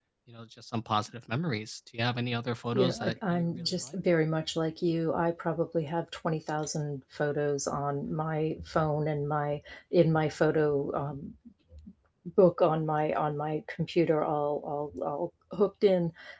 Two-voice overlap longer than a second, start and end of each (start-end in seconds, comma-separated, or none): 2.7-4.0